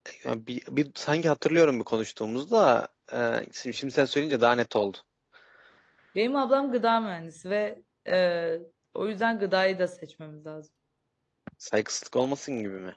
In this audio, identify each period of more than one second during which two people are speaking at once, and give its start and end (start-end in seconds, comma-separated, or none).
none